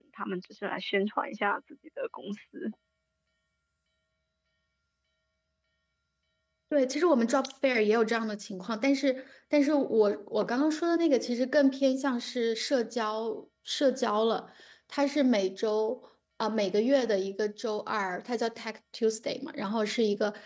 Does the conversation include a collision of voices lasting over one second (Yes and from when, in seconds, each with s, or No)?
No